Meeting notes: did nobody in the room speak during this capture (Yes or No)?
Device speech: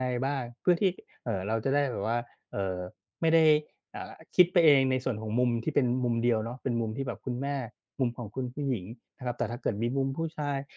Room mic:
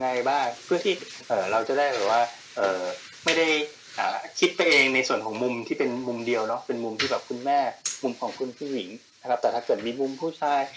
Yes